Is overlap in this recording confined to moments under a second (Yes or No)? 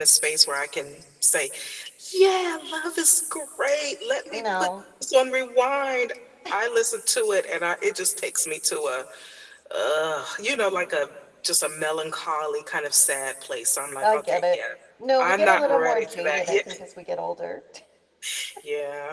No